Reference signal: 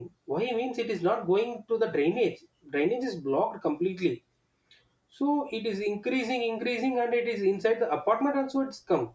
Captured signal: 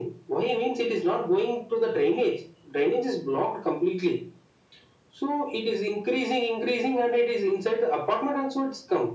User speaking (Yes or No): No